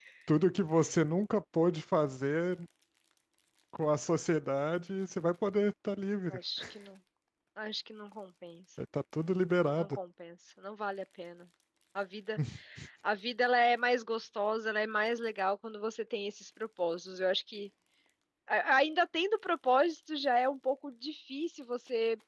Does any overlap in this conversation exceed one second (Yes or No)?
No